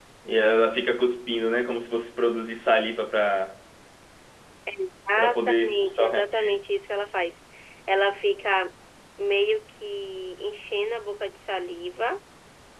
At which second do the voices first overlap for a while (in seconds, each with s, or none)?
5.2 s